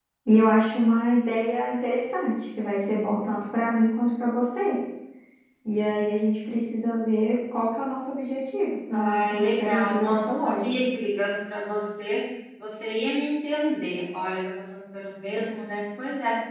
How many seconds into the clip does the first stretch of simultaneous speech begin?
8.9 s

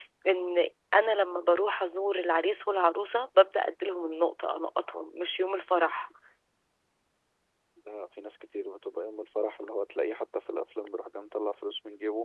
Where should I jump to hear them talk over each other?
none

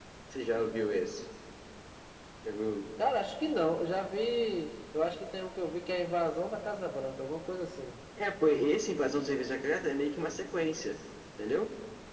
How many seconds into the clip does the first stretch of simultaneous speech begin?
none

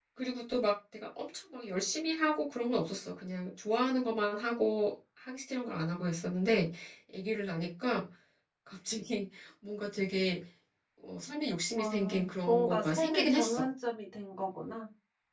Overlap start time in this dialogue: 11.8 s

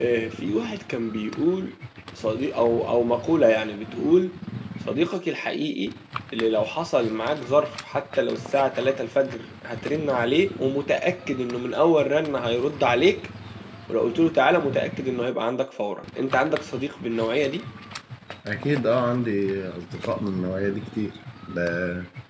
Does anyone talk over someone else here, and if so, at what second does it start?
none

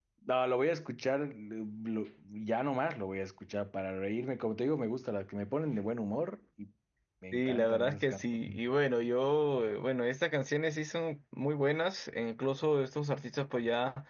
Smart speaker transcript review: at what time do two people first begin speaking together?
7.3 s

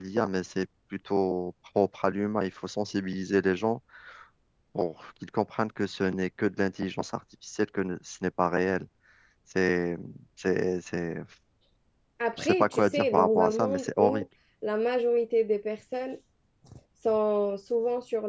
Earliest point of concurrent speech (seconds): 12.4 s

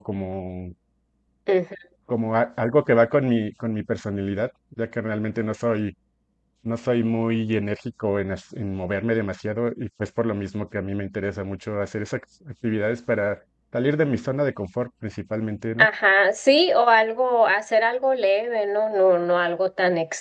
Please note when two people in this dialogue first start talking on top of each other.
none

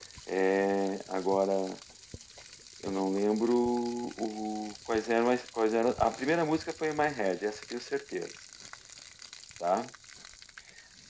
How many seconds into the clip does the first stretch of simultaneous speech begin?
none

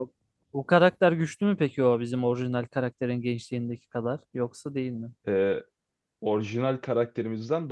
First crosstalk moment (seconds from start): none

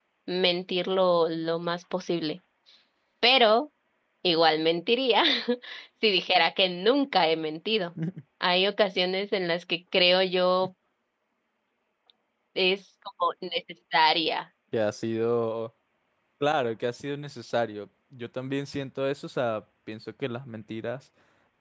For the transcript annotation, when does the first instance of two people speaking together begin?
none

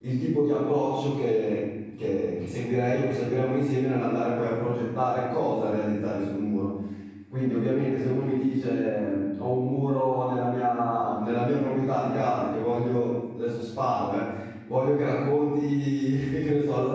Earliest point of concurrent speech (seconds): none

